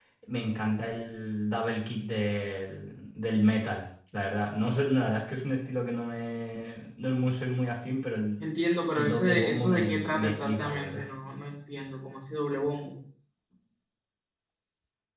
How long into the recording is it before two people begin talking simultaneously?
8.9 s

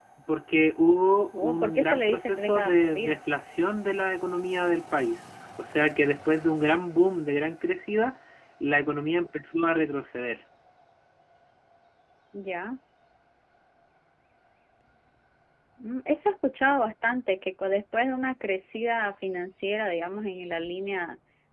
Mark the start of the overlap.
1.3 s

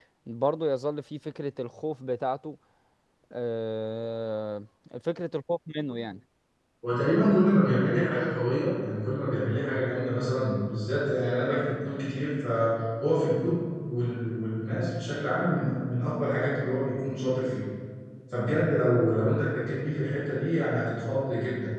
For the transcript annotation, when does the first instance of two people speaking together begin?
none

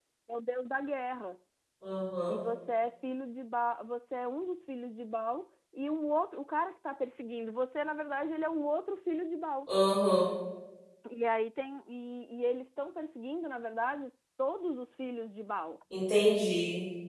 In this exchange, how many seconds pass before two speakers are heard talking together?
none

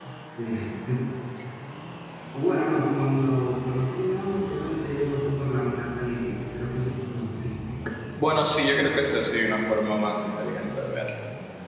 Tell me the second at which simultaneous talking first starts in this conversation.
none

